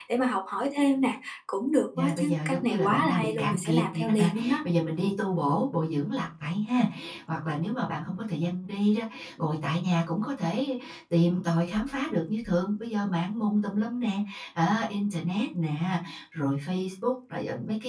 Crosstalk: present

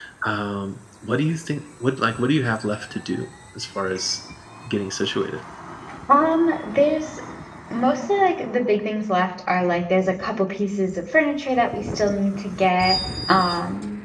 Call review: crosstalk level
none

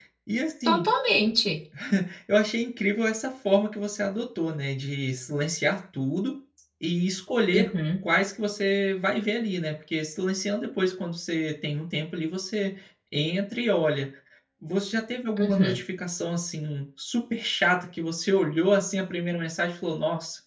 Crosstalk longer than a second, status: none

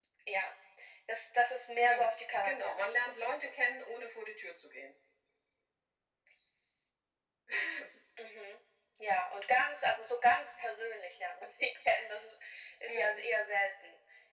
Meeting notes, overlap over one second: present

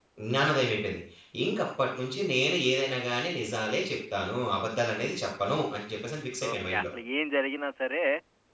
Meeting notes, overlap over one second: none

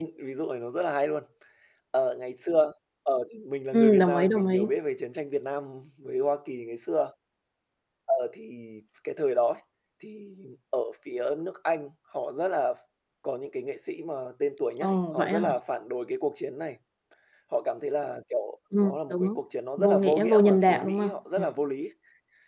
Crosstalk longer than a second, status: present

